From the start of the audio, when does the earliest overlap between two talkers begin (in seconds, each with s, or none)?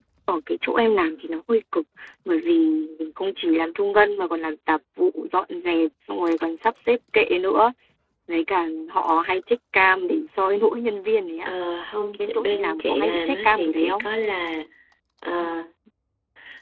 12.2 s